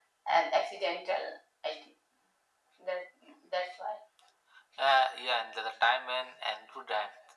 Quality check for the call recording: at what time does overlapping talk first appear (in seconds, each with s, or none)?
none